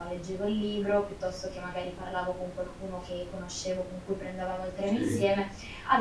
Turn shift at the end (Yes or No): No